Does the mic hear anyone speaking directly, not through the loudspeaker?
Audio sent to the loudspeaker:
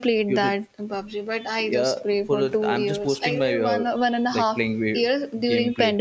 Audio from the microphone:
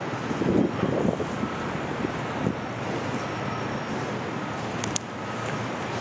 No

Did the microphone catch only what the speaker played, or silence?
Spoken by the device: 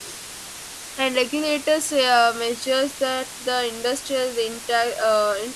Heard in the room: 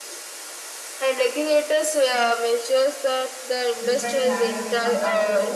No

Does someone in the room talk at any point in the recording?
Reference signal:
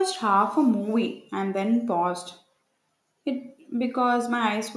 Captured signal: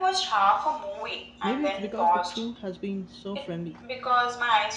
Yes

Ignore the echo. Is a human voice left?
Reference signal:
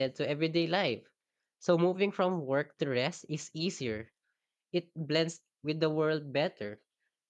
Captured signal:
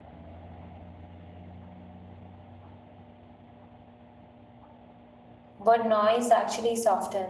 Yes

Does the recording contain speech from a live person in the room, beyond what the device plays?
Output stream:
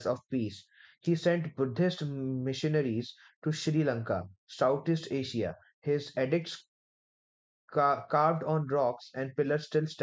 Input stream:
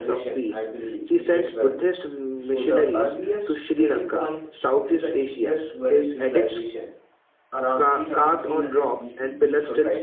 Yes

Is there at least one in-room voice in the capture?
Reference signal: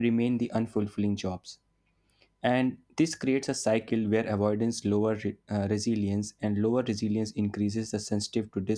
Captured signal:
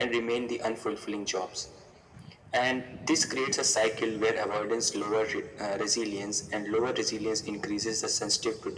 No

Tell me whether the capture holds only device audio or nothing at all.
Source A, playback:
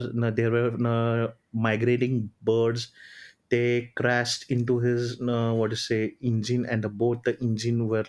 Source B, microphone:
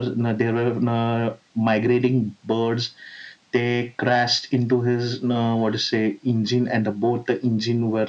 Yes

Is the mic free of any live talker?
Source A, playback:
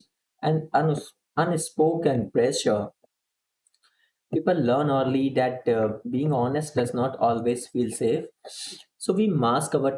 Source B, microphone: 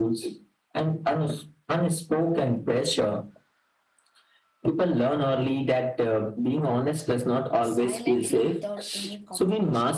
No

